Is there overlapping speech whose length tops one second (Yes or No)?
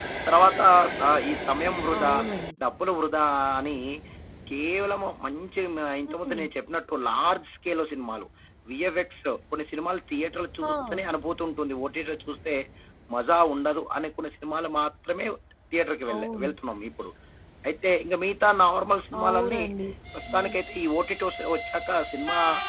No